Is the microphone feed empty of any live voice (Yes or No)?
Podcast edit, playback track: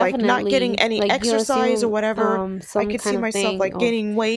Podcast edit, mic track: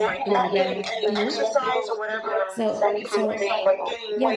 No